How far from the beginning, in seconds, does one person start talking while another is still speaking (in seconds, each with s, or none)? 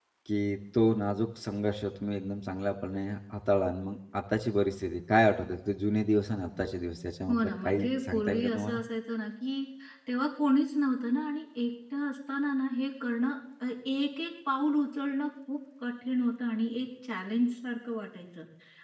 7.3 s